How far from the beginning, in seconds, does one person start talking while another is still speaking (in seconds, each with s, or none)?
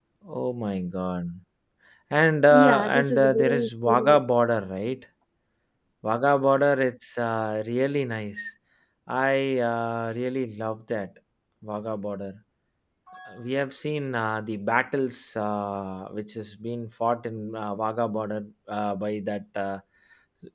2.5 s